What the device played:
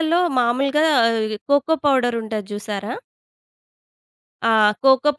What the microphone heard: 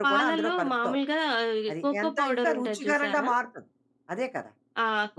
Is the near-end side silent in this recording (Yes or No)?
No